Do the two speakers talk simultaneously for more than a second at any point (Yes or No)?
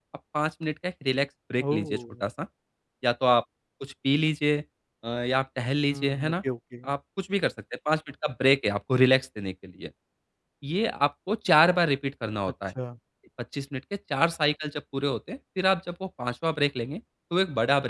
No